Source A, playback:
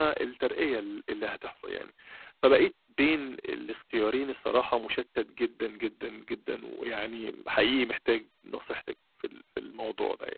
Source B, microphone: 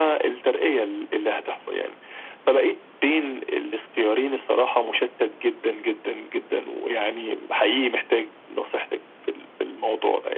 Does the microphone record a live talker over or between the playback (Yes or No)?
No